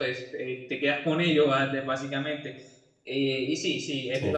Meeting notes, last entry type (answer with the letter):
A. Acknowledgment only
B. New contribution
A